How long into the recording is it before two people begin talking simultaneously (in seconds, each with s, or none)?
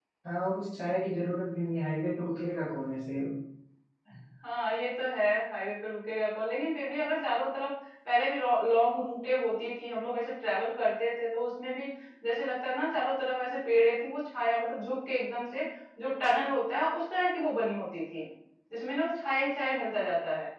none